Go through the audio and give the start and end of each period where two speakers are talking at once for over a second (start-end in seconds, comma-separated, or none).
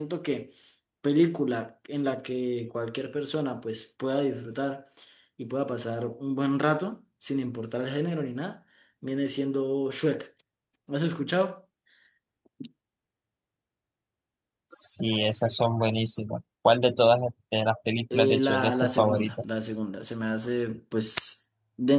18.1-19.4